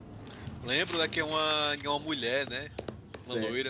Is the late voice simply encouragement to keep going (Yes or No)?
No